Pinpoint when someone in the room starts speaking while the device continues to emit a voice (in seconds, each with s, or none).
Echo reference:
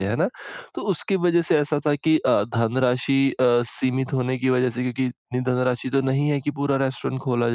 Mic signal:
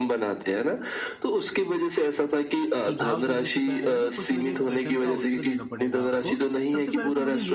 2.9 s